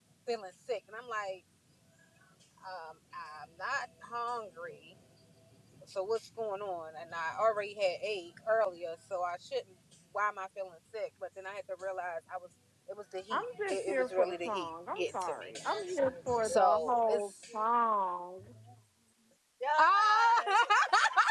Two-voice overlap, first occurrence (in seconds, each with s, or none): 13.3 s